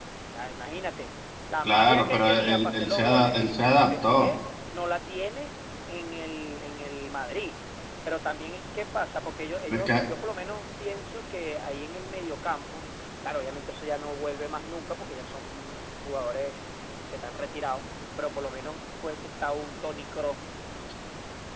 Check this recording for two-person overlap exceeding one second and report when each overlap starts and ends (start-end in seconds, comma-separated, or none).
1.6-4.3